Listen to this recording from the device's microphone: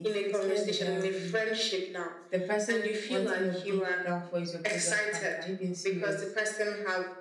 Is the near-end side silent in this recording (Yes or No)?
No